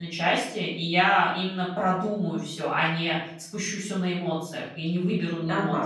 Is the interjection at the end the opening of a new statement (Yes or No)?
Yes